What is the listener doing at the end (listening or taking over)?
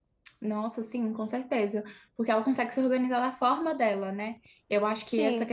listening